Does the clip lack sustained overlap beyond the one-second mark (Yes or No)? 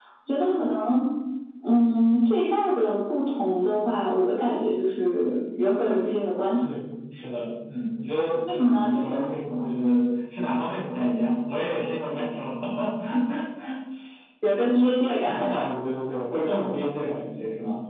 Yes